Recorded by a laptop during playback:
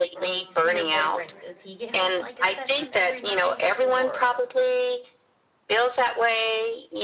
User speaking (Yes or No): Yes